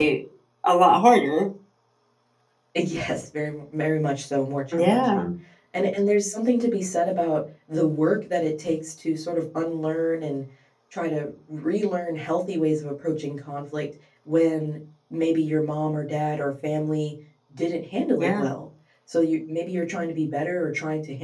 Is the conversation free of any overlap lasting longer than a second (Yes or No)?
Yes